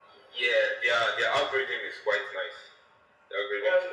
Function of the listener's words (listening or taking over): taking over